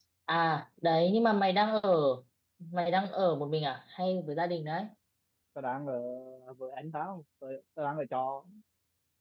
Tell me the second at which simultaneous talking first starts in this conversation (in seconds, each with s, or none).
none